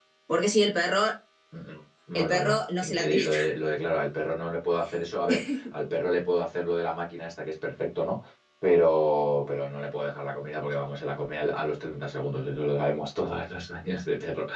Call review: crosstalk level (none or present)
present